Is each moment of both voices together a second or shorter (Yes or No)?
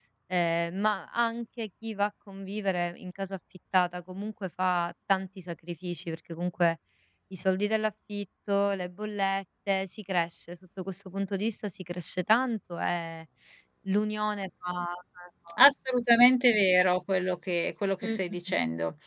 Yes